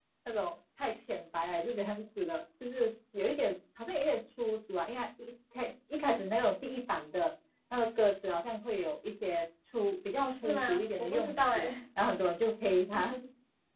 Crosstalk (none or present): present